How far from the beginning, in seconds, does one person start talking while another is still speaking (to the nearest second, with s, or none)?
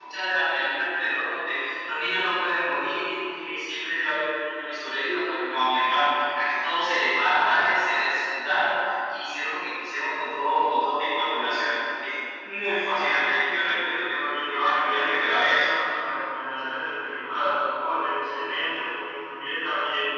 13 s